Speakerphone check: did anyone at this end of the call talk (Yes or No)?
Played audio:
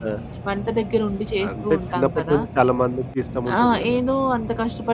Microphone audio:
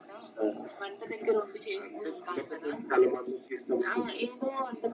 No